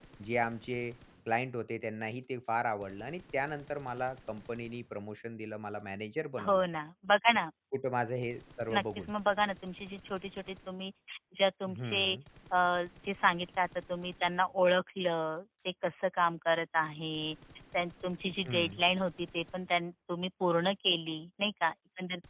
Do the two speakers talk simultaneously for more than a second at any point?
No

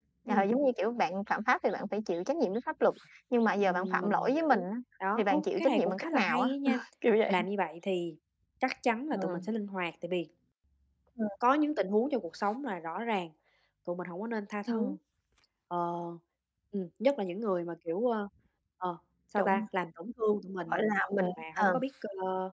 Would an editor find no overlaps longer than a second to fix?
No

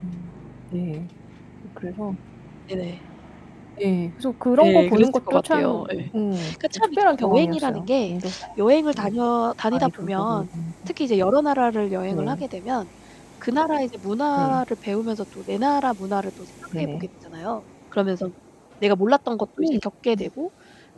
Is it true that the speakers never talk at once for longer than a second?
No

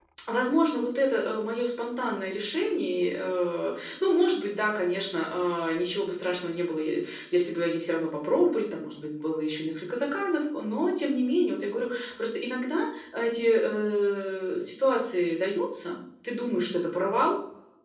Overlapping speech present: No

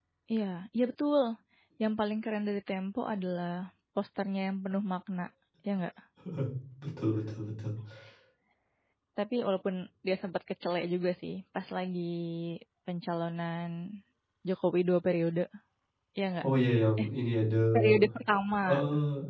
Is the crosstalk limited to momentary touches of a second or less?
Yes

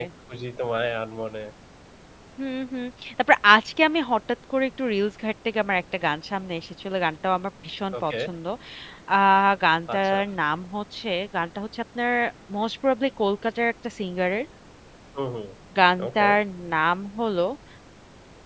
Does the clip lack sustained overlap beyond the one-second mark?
Yes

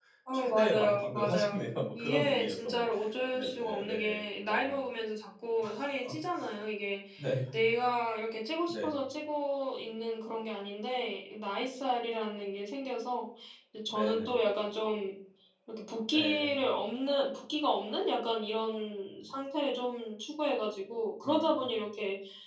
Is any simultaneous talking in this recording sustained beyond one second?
Yes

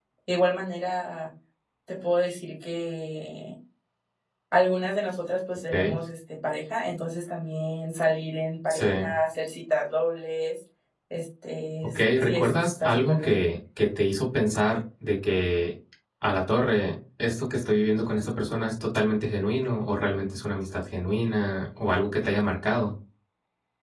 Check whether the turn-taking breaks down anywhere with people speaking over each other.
Yes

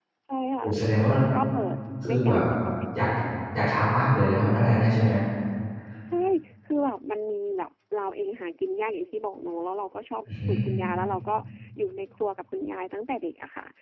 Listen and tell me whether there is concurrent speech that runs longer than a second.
No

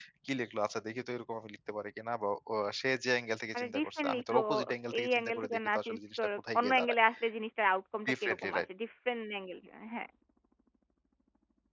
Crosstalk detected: Yes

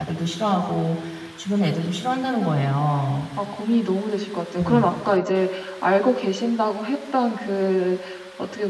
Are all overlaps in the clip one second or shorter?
Yes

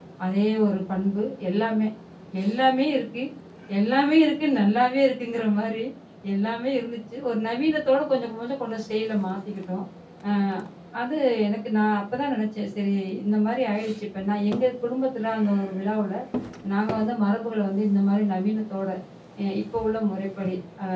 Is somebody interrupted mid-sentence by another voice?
No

